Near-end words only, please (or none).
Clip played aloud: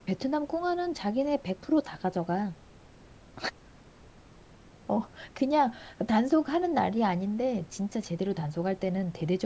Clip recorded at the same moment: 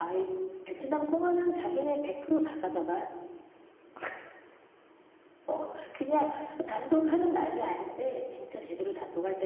none